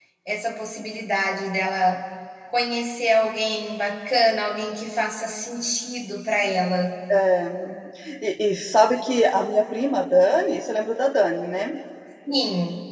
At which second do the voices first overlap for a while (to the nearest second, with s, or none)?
none